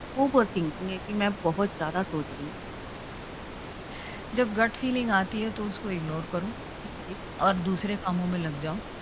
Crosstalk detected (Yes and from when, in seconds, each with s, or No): No